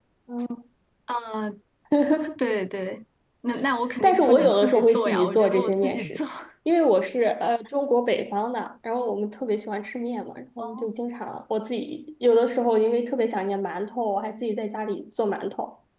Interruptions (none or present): present